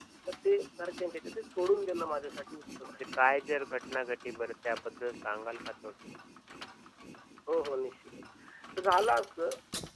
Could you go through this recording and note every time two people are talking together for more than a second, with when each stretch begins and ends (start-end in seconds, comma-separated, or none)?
none